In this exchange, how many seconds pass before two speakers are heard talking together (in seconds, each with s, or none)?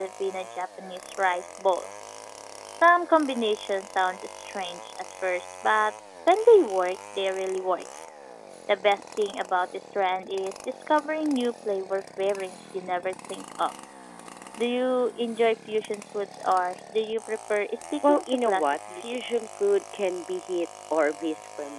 18.0 s